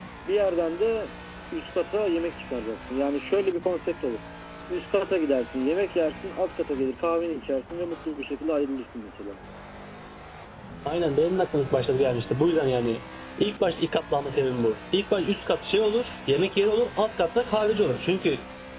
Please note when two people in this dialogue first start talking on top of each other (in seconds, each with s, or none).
none